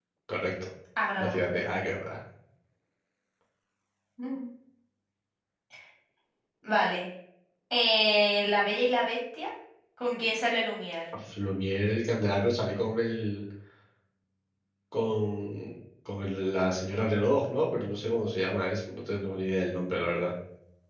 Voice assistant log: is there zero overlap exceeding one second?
Yes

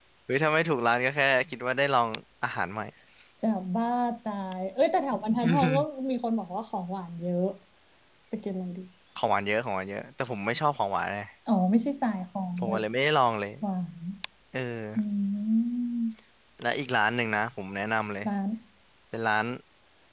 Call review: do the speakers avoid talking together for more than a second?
Yes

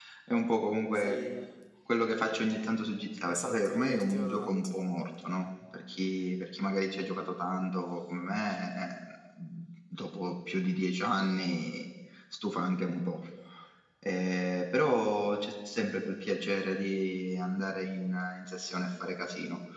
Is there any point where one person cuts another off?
Yes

